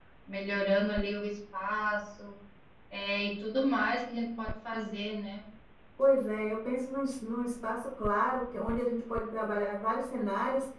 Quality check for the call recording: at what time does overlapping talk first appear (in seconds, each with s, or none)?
none